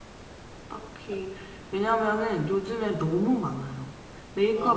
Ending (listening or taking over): listening